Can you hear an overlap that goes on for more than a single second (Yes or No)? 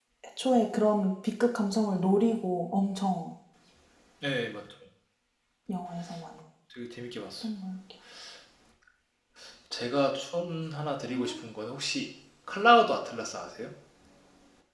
No